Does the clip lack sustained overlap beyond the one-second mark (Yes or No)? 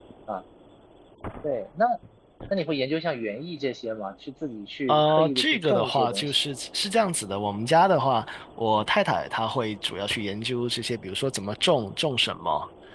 No